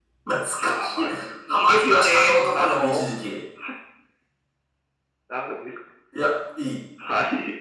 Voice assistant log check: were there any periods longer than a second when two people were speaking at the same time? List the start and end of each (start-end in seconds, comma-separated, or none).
1.6-3.0